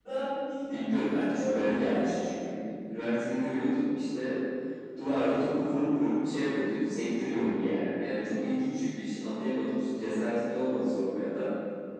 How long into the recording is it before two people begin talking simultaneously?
1 s

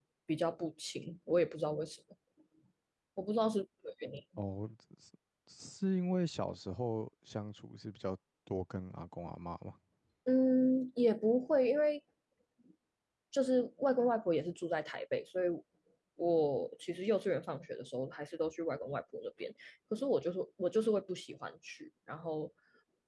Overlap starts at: none

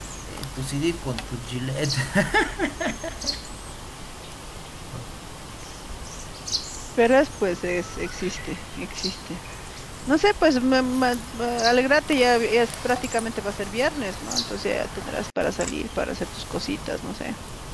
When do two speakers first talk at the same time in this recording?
none

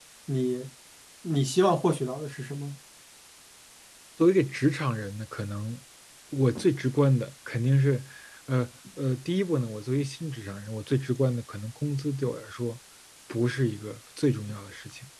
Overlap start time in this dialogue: none

